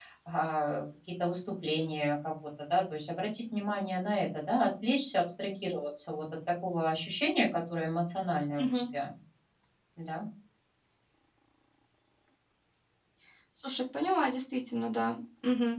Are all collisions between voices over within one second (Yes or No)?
Yes